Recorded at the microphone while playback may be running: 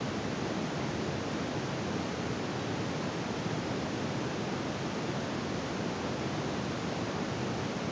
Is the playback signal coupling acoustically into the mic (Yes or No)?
No